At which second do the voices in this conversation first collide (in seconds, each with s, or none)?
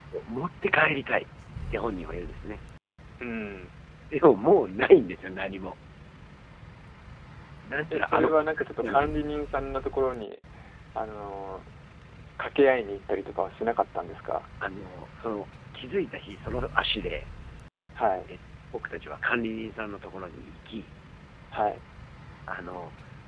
7.9 s